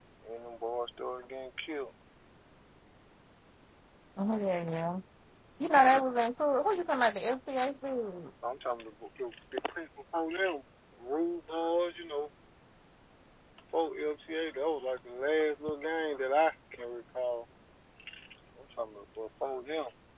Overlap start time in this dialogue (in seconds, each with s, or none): none